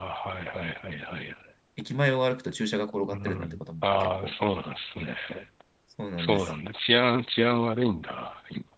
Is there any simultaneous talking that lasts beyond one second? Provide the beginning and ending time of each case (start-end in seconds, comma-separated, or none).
3.1-4.3